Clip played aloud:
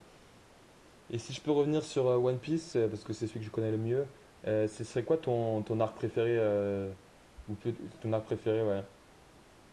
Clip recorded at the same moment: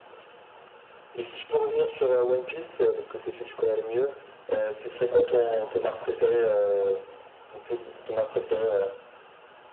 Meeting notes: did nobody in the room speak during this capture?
Yes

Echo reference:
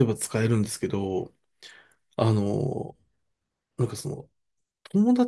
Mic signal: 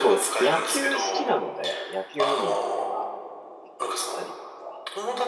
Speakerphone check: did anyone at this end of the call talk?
Yes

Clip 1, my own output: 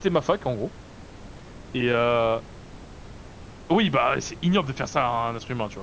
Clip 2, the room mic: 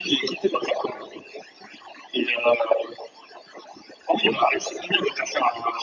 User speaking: No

